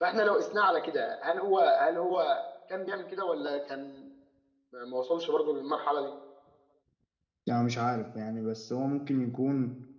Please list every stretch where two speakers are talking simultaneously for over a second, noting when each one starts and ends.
none

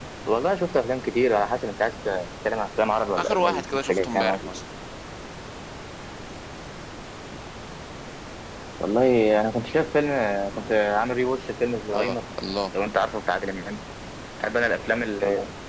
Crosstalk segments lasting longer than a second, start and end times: 3.2-4.6

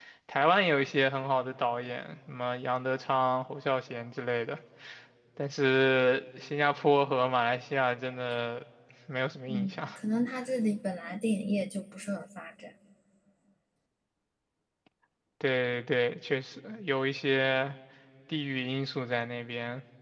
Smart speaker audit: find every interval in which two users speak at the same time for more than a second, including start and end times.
none

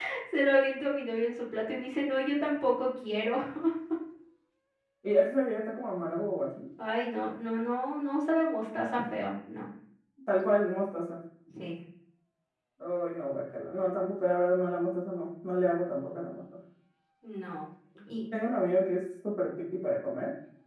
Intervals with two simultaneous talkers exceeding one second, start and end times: none

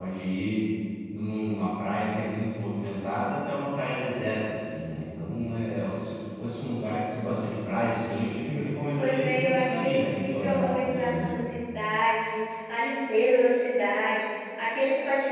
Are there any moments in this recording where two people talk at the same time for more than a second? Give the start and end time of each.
9.0-11.4

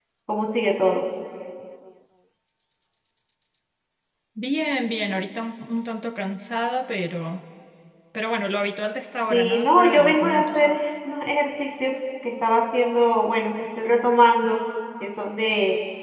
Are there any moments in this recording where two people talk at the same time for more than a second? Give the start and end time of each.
9.3-10.8

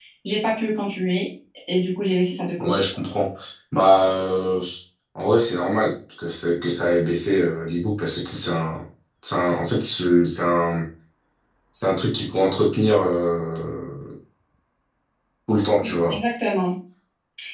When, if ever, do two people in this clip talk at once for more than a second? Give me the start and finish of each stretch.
none

